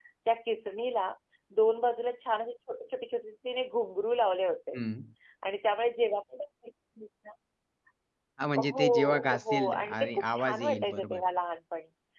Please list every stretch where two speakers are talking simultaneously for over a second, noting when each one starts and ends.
8.6-11.2

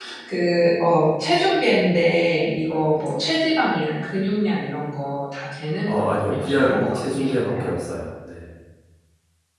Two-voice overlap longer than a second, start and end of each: 5.8-7.7

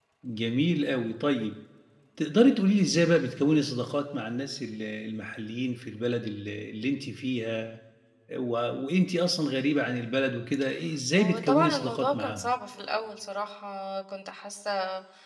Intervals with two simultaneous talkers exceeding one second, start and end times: 11.2-12.5

